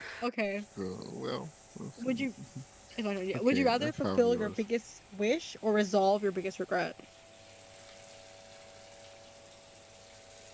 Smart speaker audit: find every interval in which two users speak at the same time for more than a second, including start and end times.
3.4-4.6

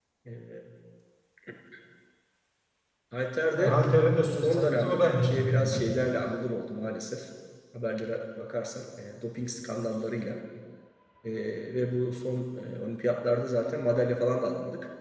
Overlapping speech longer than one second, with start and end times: 4.4-5.8

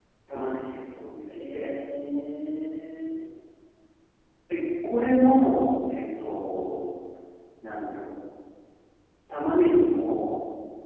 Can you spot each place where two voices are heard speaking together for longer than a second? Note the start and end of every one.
none

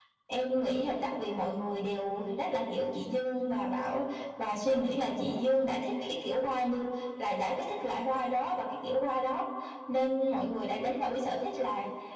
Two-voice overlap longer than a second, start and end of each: none

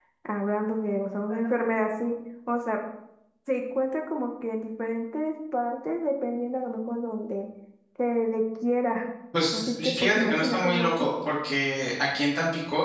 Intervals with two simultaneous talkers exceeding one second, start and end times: 9.5-11.1

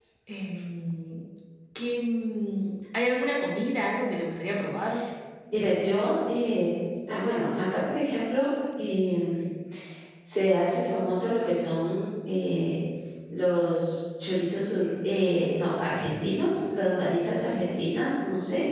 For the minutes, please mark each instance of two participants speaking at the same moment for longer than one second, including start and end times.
none

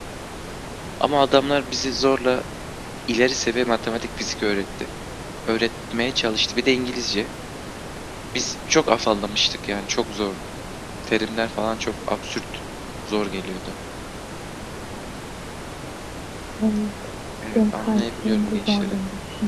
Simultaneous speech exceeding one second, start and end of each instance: 17.6-19.0

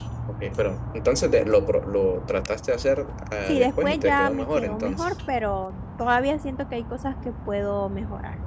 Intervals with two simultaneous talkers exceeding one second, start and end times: 3.5-5.1

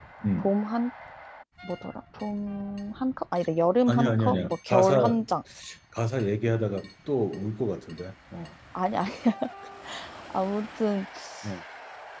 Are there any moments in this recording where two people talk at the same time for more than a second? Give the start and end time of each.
3.9-5.2

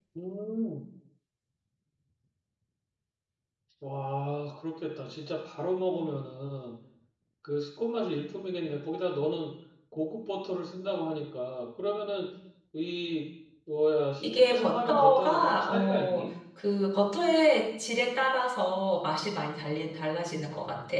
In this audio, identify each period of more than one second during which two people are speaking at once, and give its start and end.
14.2-16.2

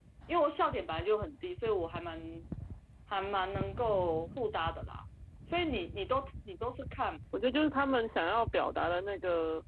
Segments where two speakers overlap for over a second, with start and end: none

